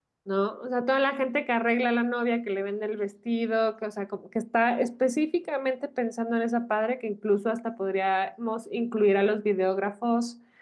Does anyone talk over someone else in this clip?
No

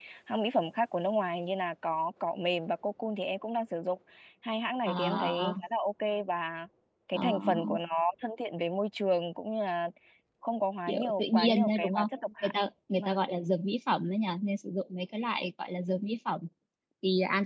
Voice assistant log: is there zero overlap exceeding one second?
No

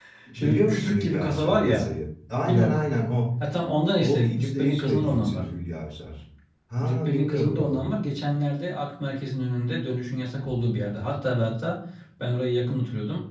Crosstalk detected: Yes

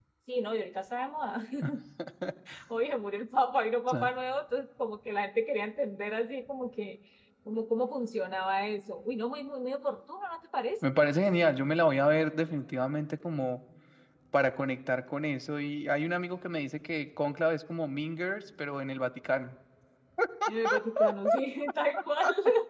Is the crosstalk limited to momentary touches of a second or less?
Yes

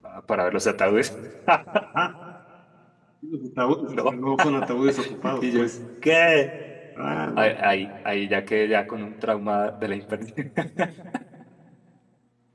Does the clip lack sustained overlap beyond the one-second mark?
Yes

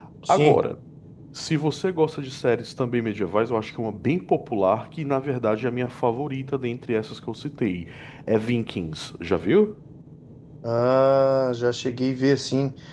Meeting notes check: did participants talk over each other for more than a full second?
No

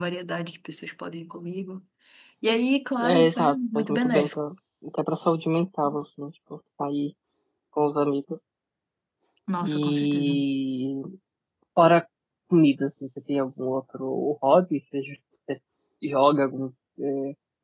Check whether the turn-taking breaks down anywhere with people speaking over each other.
Yes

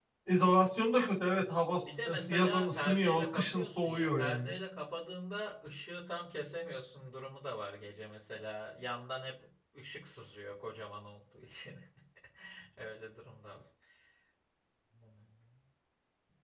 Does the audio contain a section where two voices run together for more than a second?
Yes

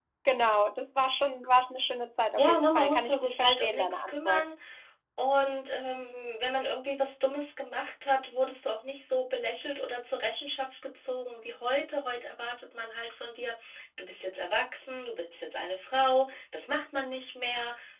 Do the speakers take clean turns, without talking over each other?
No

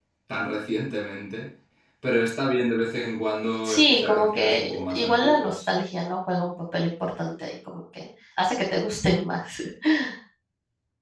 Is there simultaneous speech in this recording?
Yes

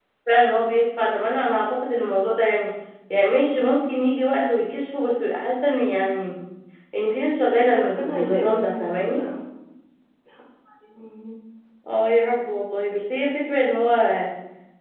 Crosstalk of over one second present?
Yes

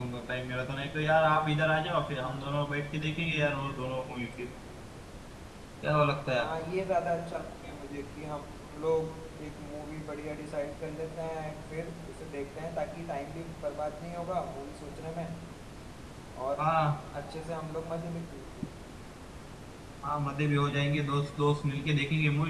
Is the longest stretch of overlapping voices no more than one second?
Yes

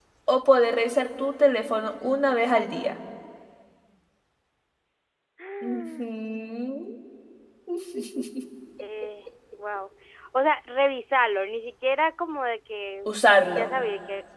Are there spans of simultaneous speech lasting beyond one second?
No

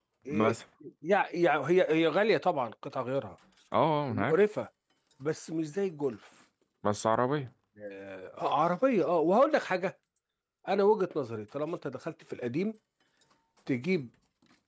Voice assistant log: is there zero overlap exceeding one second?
Yes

